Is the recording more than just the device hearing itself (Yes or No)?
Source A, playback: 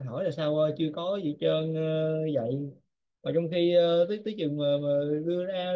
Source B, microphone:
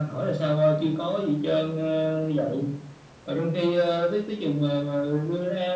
No